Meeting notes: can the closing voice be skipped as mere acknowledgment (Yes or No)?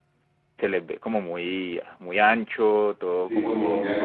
No